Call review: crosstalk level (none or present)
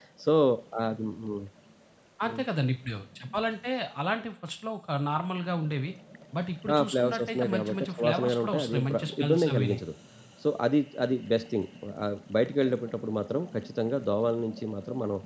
present